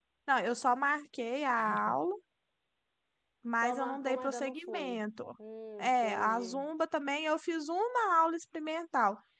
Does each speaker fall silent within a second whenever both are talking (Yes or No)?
No